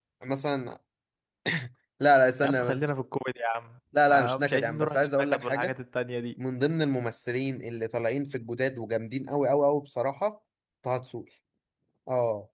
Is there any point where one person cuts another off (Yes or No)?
Yes